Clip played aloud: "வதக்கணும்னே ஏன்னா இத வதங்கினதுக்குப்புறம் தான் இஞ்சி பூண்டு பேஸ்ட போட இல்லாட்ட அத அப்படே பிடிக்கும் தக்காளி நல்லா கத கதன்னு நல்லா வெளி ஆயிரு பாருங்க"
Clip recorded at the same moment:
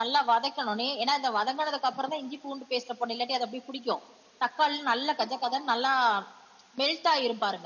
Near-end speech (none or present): none